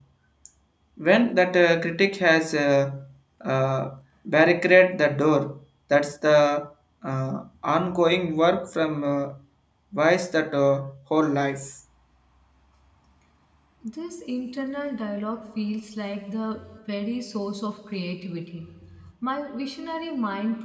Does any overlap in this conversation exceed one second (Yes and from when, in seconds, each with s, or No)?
No